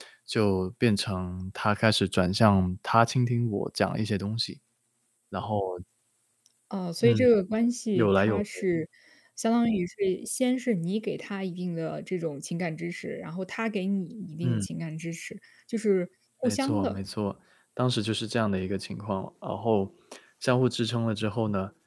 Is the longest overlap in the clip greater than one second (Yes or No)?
No